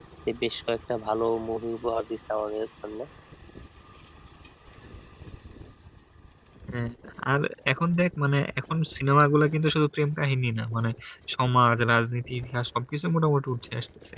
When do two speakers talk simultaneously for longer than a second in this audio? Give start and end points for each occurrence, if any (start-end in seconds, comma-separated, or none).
none